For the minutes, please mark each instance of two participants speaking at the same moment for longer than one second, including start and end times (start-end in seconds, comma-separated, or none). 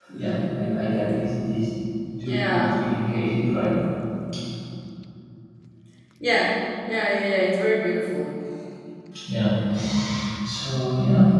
none